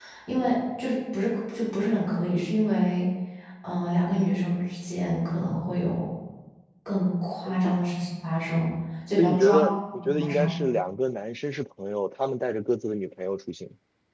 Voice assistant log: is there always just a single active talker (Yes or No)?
No